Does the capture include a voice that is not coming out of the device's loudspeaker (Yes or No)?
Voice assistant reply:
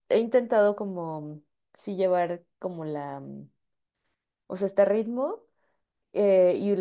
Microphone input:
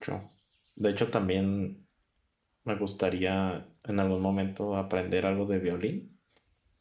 Yes